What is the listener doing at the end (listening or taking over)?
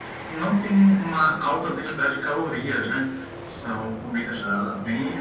listening